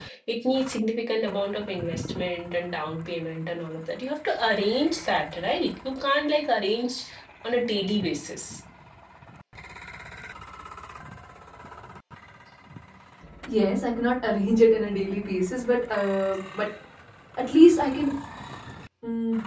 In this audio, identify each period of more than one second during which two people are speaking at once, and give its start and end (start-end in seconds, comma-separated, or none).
none